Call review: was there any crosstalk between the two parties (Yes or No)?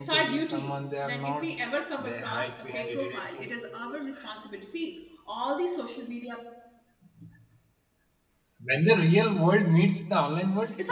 Yes